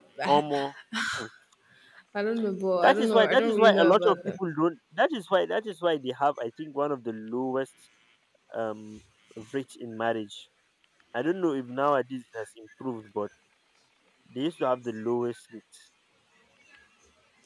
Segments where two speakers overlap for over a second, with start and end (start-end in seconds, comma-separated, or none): 2.8-4.2